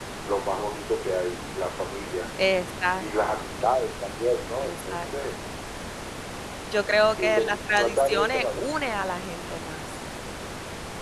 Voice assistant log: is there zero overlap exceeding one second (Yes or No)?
No